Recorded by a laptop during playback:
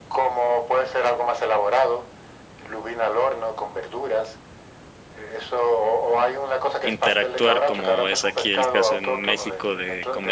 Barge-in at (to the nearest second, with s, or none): 7 s